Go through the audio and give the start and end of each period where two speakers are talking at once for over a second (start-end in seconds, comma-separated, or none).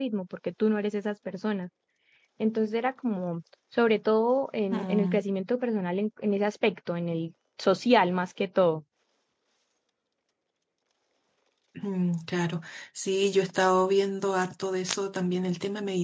none